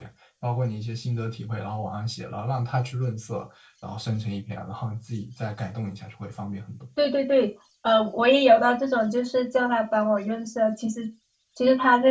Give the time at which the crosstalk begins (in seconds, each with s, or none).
none